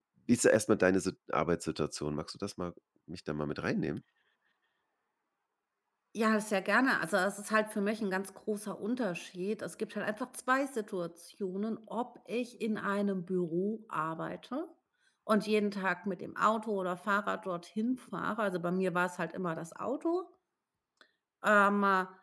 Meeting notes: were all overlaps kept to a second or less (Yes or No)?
Yes